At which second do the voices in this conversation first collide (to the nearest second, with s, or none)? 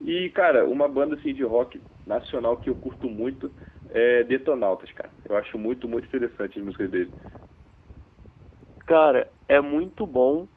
none